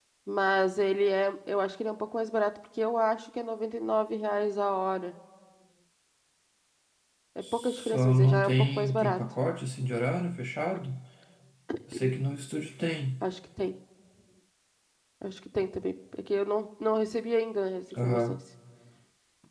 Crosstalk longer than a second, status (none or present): present